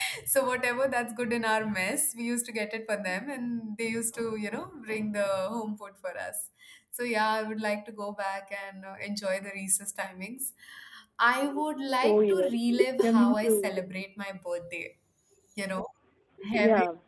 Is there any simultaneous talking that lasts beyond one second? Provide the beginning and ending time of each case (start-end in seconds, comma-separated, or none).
12.0-13.7